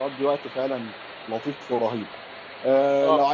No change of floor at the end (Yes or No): Yes